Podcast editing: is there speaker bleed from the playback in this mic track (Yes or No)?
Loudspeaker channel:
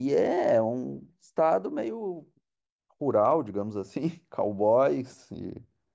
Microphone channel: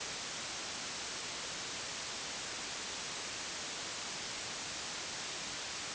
No